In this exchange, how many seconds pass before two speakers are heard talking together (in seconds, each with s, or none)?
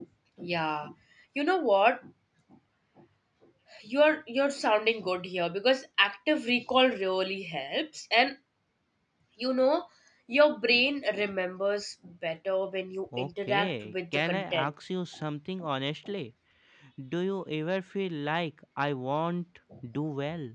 13.1 s